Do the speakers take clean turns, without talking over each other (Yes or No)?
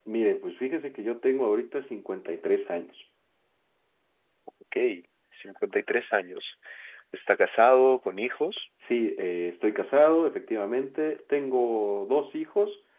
Yes